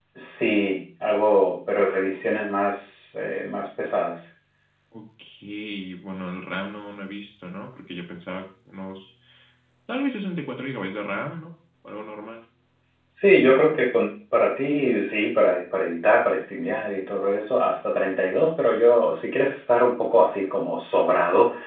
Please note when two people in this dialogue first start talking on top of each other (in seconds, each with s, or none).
none